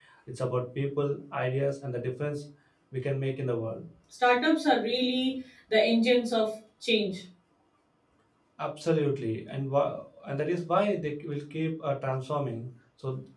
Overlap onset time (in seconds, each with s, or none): none